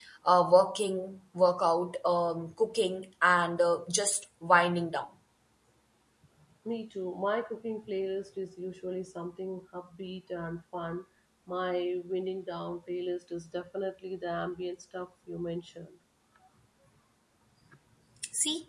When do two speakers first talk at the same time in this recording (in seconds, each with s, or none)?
none